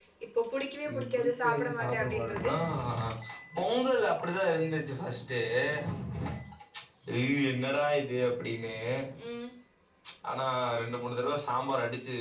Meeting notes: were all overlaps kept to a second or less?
No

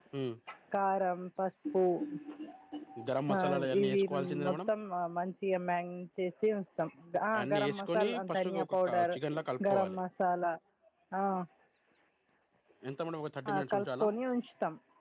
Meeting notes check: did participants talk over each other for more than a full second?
Yes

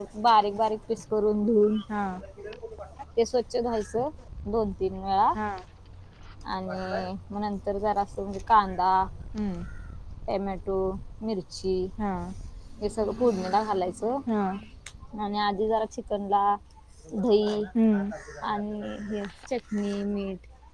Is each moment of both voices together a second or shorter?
Yes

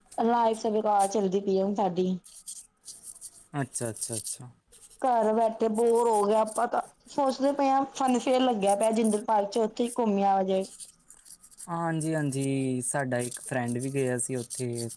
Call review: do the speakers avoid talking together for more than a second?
Yes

